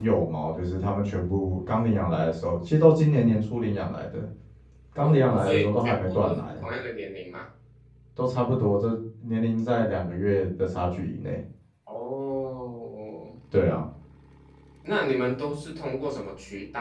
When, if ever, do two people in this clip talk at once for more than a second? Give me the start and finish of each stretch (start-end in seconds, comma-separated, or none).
5.0-6.7